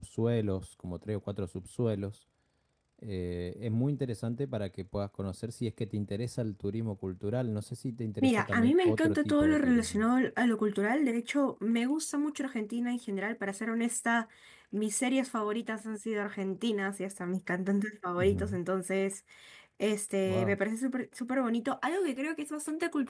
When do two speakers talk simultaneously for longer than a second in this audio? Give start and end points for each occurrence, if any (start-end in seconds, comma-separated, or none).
8.2-10.1